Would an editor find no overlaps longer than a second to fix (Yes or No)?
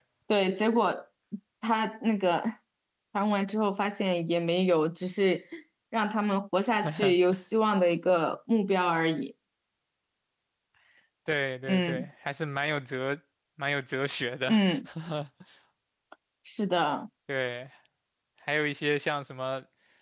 Yes